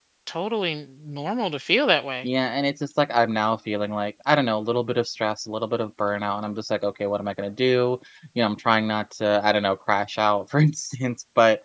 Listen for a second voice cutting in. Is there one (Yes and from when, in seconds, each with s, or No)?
No